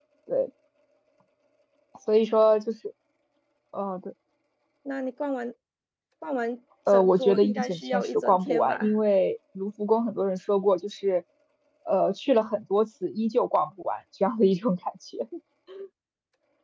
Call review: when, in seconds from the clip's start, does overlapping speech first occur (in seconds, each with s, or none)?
6.9 s